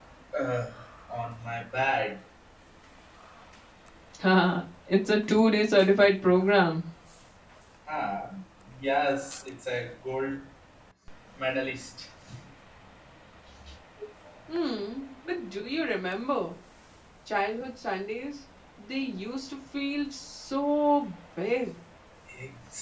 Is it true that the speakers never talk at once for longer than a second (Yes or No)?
Yes